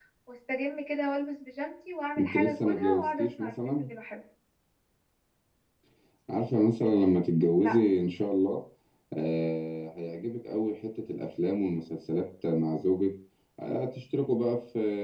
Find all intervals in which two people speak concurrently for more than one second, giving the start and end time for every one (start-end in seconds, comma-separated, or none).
2.2-3.9